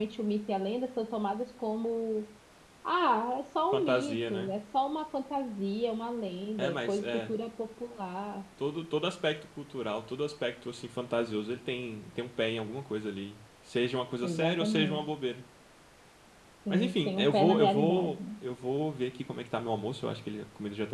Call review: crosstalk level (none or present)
present